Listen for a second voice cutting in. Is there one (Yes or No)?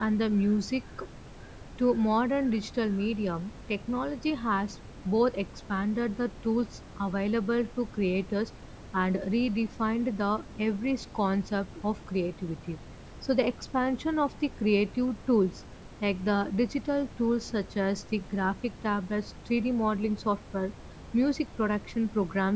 No